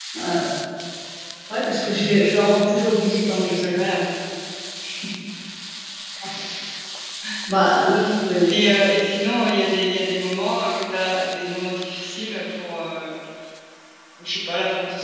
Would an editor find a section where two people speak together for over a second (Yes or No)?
No